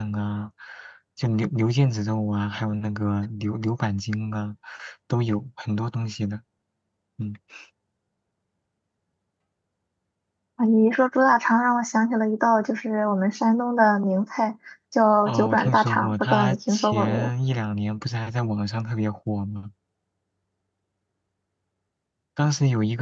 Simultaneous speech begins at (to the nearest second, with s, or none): 15 s